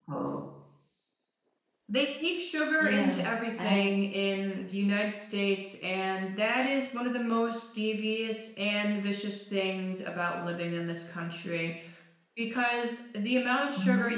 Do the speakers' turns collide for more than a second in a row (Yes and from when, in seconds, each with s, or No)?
No